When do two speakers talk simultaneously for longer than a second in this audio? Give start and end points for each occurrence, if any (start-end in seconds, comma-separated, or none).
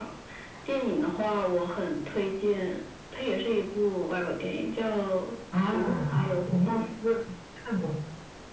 5.6-6.9